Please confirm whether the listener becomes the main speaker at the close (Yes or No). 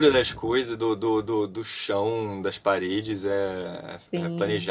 No